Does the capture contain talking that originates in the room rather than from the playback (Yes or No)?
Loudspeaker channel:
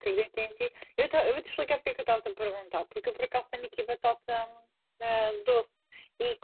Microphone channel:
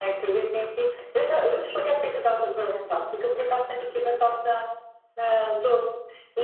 No